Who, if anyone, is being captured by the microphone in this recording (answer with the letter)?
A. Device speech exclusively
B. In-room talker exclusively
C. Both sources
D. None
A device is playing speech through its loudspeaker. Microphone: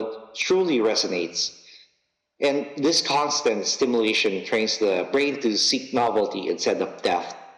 A